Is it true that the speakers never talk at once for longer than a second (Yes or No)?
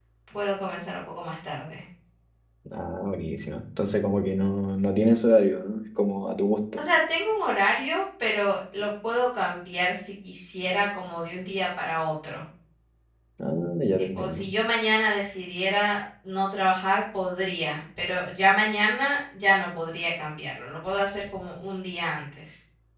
Yes